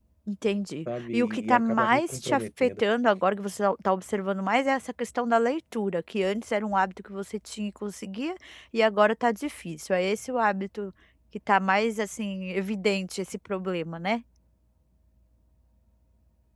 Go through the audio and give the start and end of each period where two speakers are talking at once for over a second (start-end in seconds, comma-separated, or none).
1.1-2.8